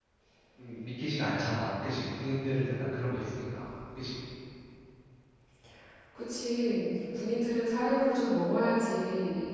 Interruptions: none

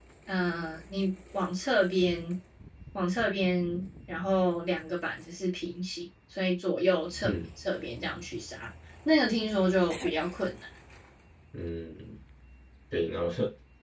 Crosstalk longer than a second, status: none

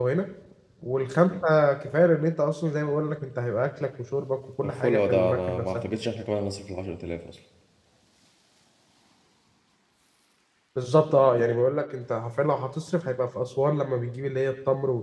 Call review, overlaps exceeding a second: present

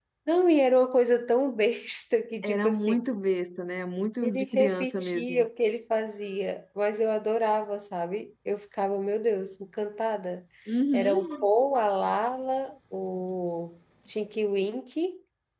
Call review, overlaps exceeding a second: present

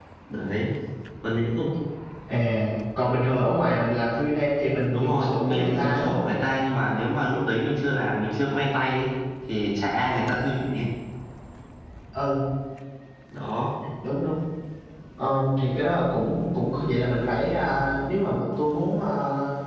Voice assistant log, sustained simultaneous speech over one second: present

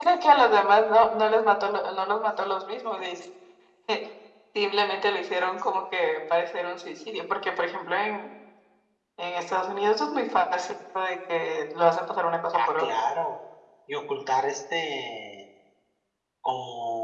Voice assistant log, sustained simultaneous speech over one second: none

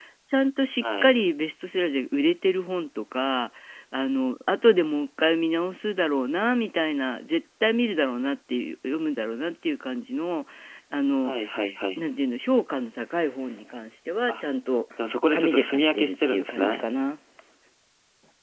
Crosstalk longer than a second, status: present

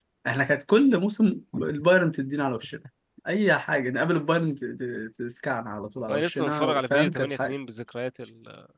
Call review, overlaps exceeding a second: present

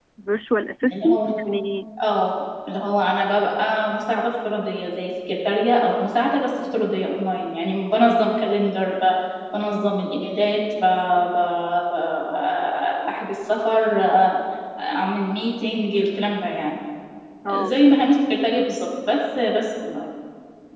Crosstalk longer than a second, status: none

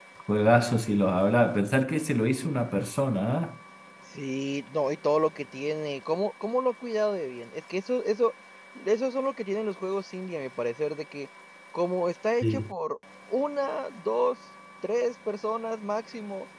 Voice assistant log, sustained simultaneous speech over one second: none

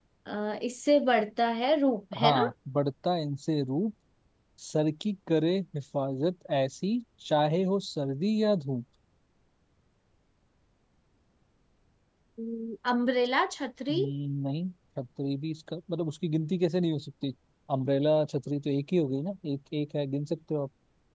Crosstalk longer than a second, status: none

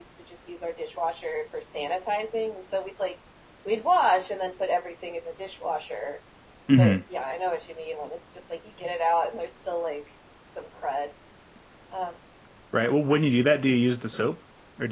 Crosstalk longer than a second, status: none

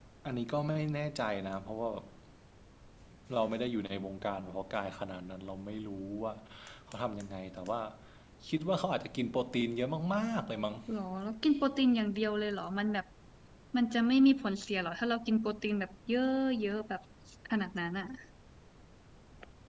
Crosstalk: none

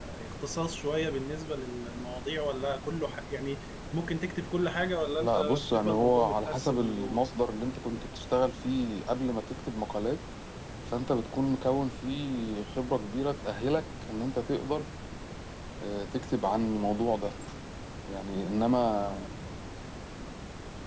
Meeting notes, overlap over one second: present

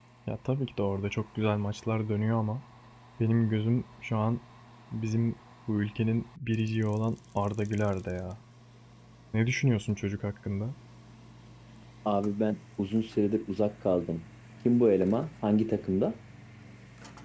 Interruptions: none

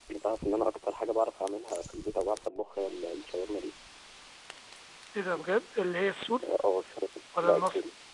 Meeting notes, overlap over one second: none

